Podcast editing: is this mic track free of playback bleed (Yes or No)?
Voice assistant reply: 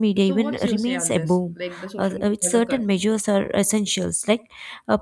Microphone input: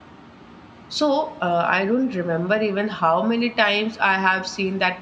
Yes